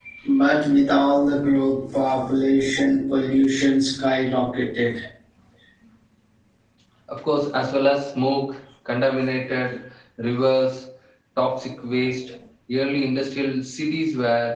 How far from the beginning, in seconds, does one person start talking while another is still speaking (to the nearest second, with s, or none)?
none